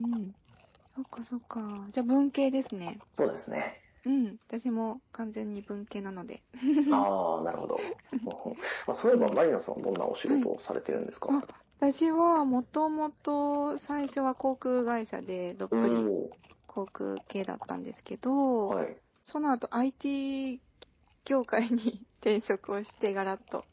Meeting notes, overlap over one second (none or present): none